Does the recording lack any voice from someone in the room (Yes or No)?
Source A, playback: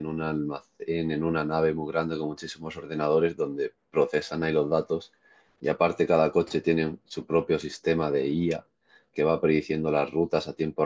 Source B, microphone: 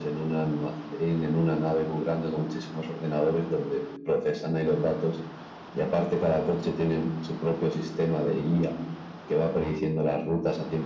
Yes